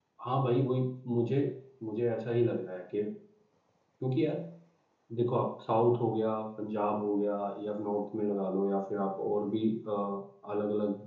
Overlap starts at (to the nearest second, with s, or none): none